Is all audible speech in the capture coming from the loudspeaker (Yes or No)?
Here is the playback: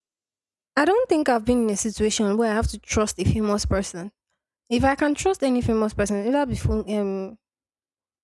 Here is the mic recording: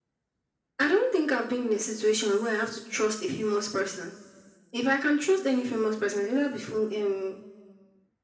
Yes